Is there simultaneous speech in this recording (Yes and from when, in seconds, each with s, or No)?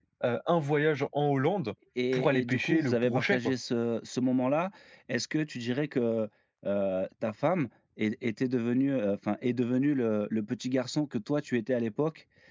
Yes, from 2.1 s